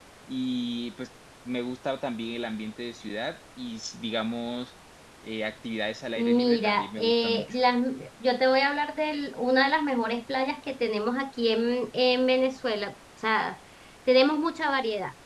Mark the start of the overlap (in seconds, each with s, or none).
6.2 s